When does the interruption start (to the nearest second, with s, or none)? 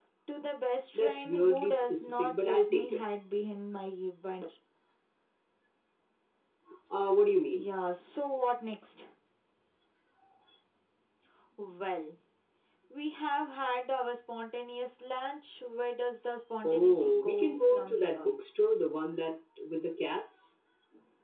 1 s